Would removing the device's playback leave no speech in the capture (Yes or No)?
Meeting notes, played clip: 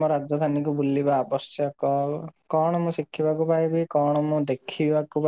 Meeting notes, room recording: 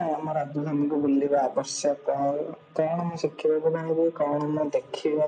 Yes